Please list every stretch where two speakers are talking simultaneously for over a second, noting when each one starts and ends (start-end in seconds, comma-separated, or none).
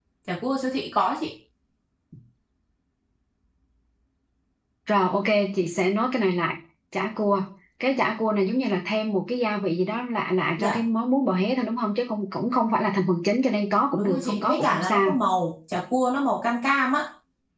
13.9-15.2